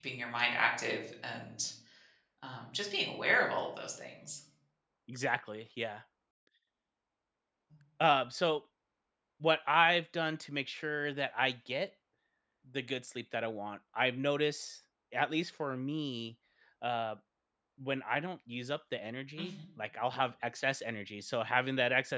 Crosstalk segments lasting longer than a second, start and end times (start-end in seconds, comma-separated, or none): none